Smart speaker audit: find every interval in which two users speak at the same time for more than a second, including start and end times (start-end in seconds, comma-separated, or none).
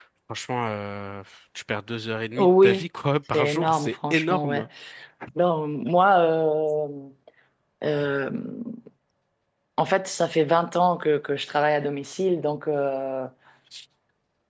3.3-4.6